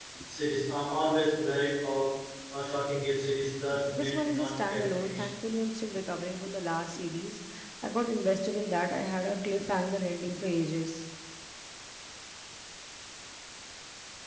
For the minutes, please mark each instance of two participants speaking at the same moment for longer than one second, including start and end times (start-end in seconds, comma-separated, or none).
3.9-5.2